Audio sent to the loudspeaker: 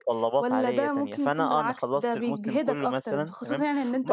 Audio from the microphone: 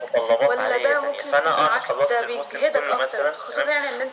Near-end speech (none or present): none